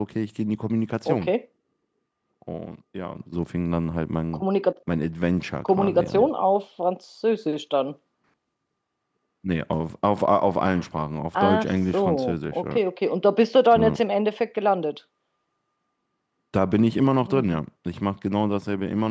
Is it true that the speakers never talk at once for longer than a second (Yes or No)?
No